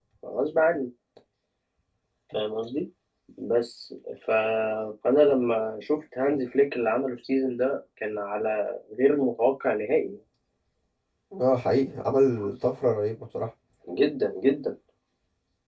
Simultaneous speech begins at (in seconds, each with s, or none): none